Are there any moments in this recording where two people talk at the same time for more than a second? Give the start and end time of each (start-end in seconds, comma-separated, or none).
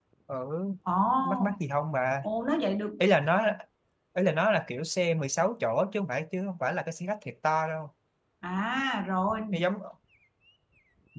none